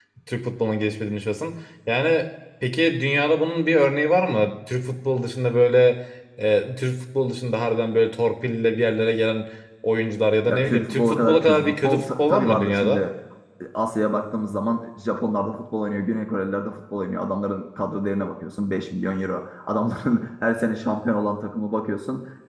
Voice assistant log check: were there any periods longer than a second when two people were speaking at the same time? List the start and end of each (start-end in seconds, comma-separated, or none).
10.5-13.0